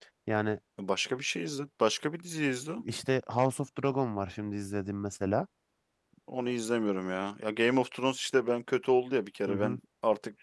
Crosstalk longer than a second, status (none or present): none